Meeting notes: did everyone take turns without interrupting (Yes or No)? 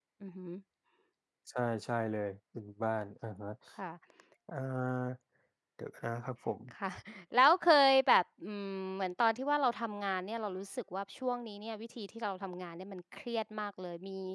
Yes